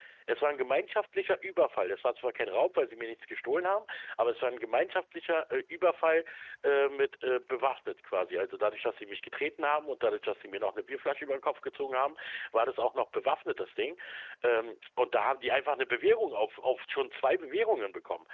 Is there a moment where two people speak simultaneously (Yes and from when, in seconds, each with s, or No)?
No